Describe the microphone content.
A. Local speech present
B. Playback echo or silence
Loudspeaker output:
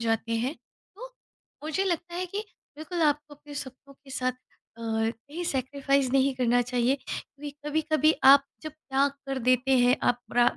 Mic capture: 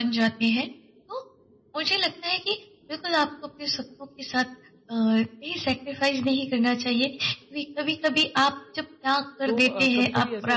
A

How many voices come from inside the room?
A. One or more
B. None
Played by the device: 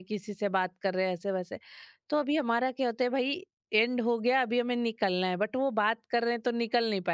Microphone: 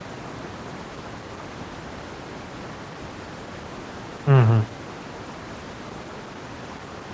A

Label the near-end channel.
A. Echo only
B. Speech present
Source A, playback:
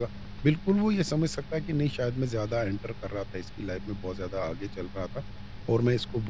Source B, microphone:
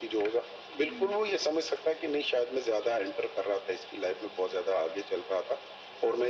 B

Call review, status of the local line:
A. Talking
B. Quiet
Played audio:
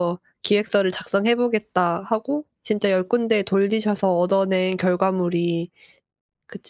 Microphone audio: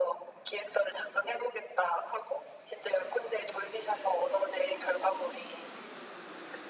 B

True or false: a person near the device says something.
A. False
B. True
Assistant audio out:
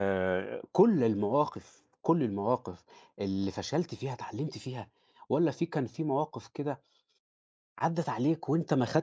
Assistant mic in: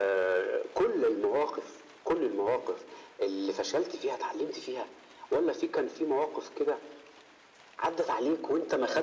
A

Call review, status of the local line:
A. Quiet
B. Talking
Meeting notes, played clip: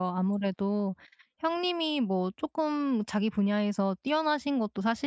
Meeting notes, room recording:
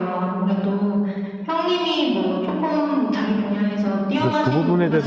B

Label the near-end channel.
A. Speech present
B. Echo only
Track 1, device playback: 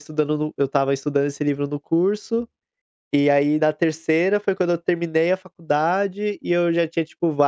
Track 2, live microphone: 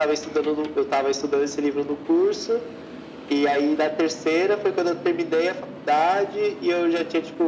B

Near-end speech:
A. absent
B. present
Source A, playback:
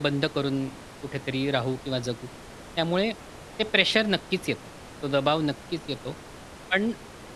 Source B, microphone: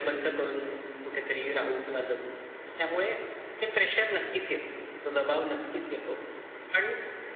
A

